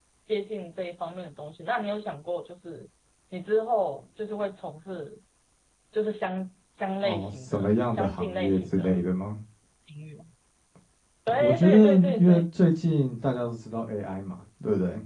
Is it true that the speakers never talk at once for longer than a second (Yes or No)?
No